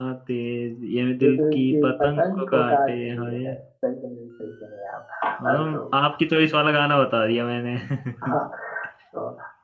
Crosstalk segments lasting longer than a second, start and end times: 1.2-3.6

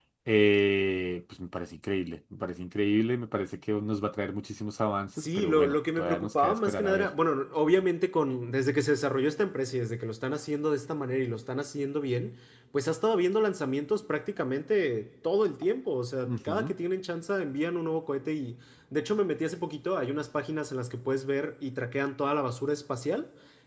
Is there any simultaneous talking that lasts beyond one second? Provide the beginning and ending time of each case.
5.2-7.1

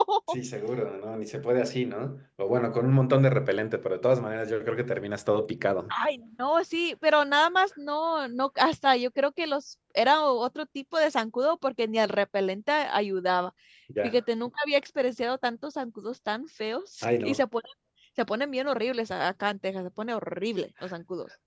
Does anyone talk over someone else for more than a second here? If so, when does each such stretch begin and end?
none

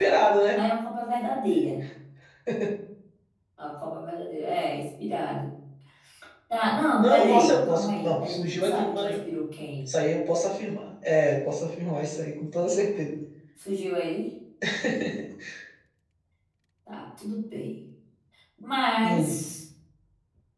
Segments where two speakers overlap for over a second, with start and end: 7.0-9.2

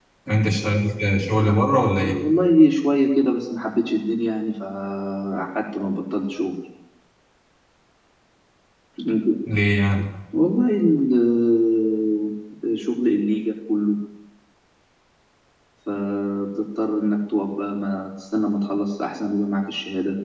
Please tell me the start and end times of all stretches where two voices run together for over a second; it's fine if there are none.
none

